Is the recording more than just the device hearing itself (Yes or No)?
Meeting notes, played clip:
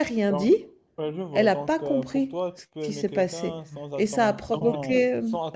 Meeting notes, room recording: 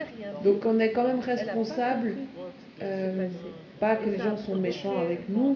Yes